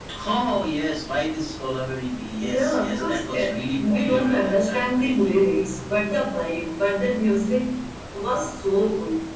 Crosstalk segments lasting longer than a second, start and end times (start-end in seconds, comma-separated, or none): 2.4-5.1